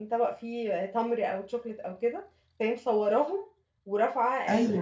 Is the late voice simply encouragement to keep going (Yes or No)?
Yes